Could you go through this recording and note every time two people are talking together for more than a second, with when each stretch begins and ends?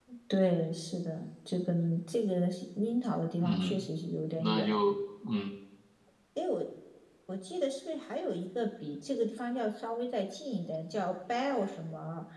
none

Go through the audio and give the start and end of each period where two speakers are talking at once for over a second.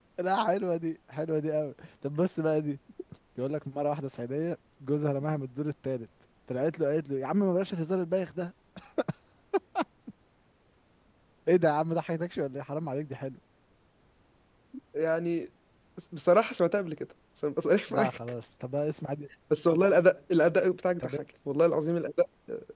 none

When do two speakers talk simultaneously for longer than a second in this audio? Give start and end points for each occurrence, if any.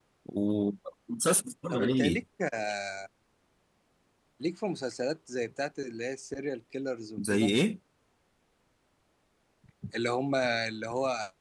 none

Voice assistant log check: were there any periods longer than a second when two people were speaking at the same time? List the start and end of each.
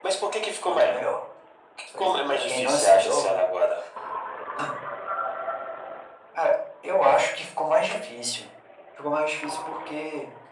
1.9-3.3

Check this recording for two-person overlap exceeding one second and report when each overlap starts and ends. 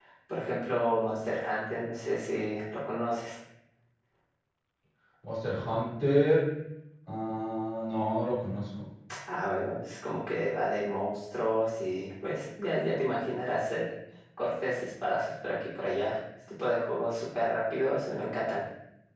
none

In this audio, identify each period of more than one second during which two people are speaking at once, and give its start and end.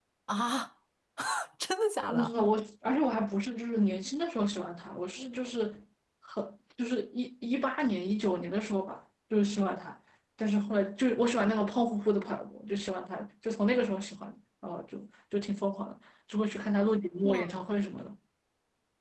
none

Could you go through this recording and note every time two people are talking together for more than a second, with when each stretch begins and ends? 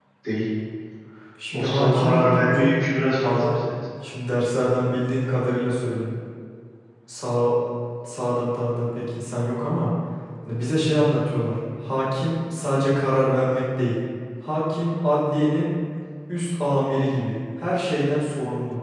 1.5-2.8

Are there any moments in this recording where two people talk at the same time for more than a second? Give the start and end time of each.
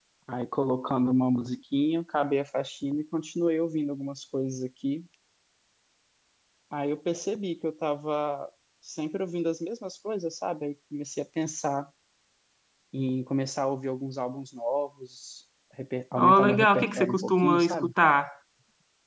16.2-17.9

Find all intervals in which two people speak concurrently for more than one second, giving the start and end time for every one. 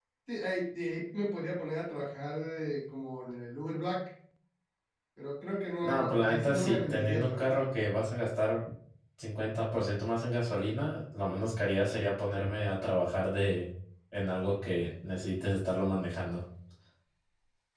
5.8-7.9

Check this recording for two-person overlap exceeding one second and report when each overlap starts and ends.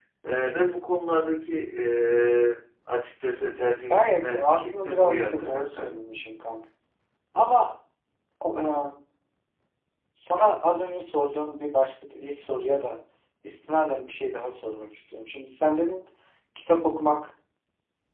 3.9-5.8

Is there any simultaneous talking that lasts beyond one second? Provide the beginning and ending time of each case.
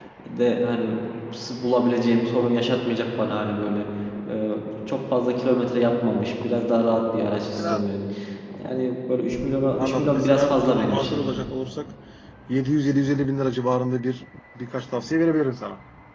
9.8-11.1

